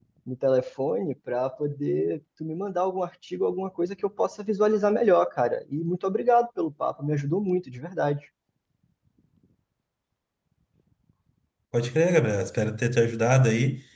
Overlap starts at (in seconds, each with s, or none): none